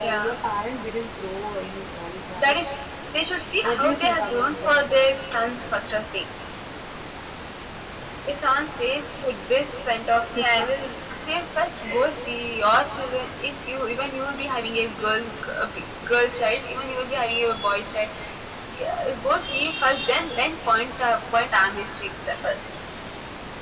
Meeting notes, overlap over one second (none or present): present